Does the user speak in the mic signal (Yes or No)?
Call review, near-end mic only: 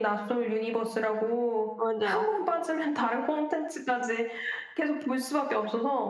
Yes